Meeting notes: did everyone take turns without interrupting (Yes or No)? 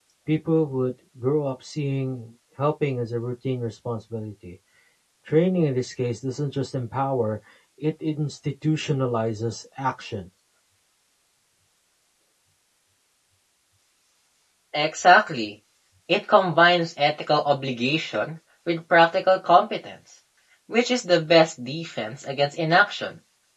Yes